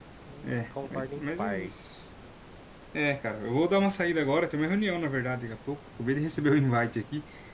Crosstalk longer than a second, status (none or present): present